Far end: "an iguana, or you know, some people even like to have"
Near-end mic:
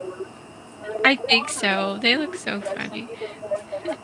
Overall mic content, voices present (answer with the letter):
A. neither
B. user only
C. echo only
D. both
D